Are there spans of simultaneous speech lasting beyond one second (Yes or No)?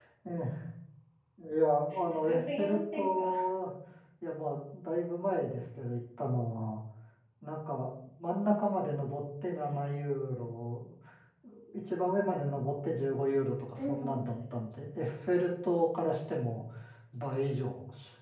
Yes